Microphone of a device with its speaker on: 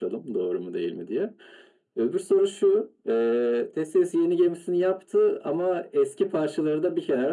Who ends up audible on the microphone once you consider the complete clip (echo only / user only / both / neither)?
echo only